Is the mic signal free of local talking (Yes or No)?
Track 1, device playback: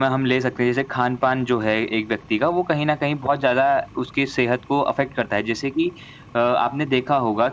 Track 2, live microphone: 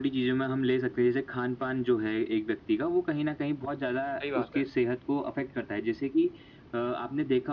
No